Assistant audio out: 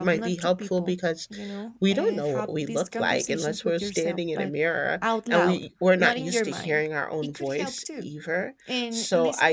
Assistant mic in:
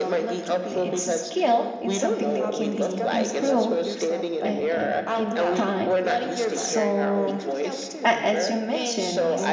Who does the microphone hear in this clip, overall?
both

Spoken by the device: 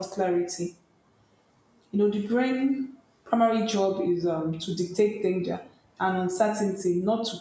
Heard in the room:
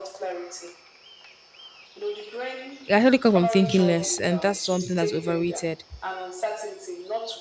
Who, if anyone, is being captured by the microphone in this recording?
both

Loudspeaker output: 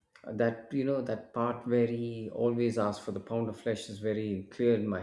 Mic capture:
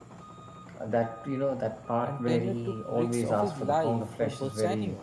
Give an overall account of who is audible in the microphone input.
both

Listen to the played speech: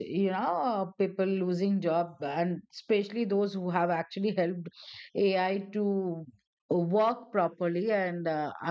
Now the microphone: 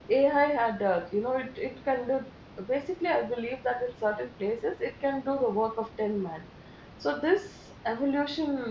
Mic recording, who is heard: user only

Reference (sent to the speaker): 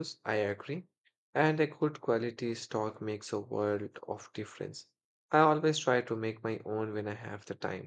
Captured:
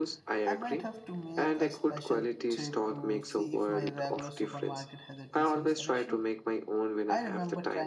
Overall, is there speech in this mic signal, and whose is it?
both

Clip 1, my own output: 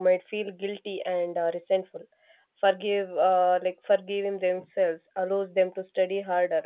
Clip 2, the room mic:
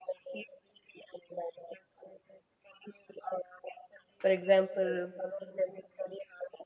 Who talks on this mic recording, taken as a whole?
both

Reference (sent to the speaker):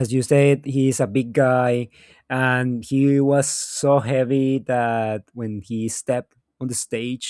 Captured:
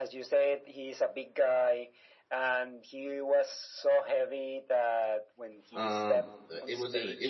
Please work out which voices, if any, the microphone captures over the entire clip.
both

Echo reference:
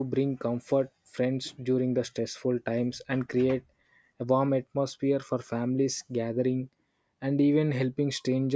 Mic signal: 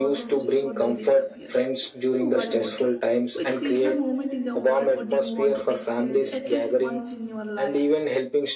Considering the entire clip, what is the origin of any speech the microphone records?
both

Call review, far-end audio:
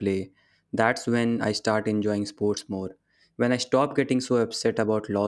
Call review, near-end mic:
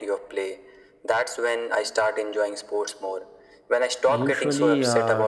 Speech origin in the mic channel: both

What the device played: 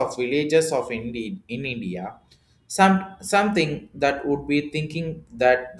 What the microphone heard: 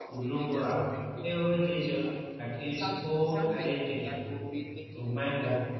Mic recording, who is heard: both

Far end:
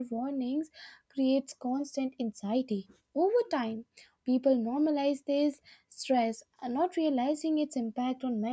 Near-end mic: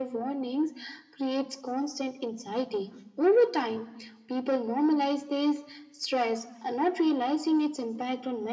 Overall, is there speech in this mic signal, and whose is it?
echo only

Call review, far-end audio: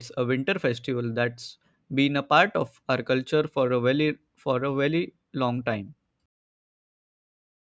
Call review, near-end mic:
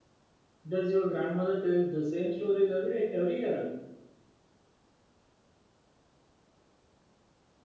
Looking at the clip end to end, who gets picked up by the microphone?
user only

